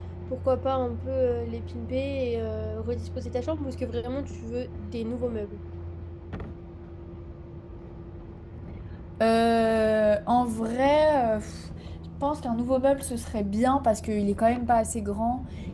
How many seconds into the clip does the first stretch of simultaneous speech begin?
none

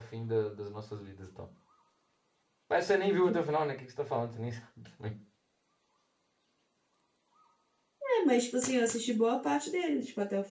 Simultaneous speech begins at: none

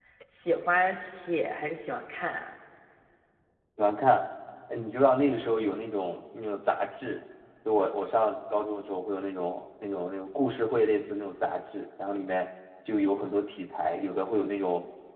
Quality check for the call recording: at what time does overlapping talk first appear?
none

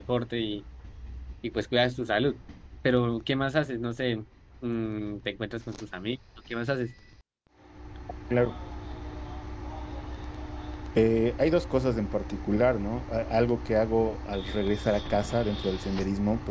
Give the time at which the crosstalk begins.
none

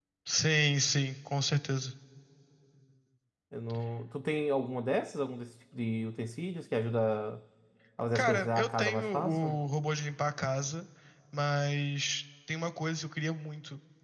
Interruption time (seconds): 8.2 s

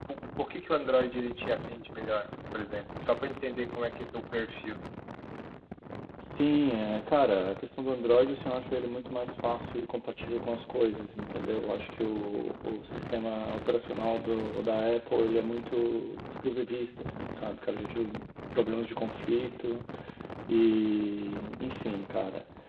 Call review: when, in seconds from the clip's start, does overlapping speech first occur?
none

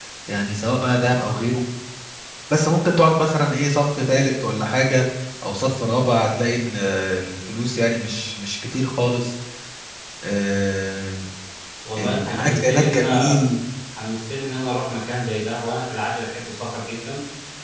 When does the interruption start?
12.0 s

